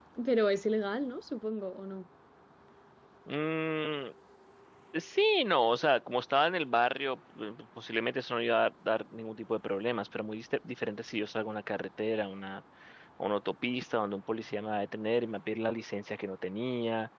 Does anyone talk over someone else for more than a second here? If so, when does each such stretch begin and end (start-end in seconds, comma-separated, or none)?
none